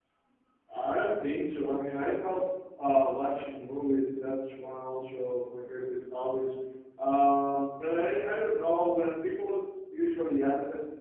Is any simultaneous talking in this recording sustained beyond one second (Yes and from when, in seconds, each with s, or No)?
No